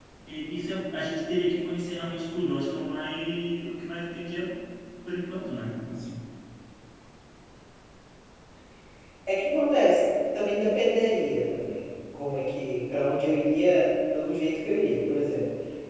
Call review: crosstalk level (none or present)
none